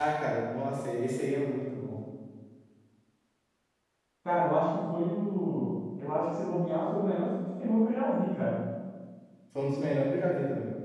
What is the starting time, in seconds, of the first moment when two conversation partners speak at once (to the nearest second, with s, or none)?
none